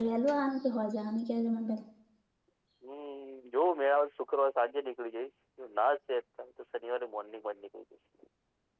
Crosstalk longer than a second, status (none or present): none